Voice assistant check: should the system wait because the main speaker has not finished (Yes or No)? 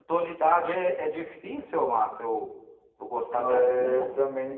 No